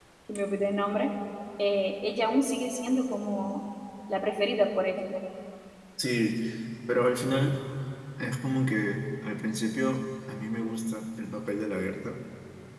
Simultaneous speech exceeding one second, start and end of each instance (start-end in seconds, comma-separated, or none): none